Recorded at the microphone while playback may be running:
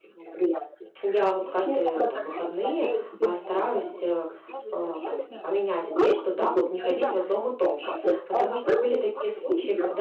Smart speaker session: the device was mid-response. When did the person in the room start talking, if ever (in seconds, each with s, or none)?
1.0 s